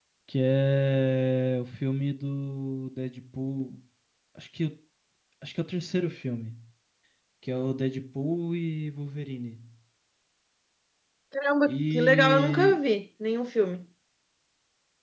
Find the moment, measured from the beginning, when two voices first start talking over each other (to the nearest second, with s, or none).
12 s